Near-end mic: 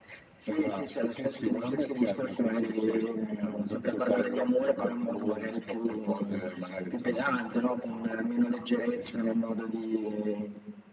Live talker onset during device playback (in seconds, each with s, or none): none